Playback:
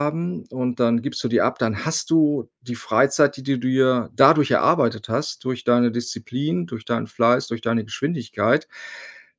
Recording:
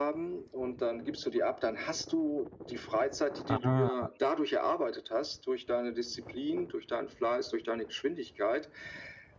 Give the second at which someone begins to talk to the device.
3 s

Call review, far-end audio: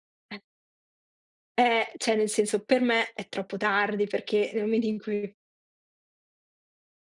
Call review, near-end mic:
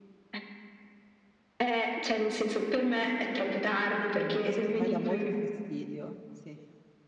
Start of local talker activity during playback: 4 s

